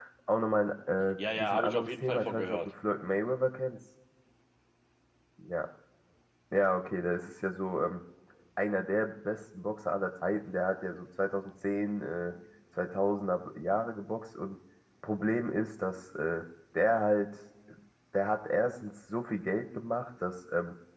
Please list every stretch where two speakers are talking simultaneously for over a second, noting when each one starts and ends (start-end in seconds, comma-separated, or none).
1.4-2.6